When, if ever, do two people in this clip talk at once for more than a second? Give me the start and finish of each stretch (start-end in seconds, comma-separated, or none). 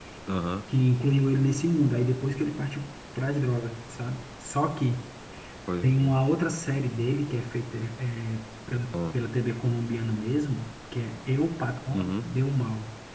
none